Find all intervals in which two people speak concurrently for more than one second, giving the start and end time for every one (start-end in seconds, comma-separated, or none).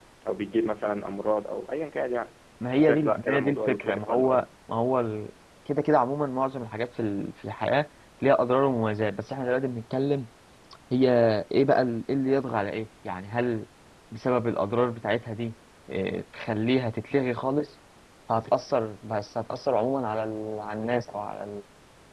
2.8-4.4